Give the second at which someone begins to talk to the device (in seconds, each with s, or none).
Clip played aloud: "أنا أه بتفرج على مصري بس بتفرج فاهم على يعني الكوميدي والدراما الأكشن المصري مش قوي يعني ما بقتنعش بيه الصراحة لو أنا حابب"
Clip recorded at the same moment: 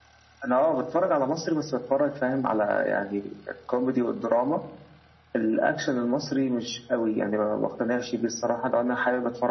none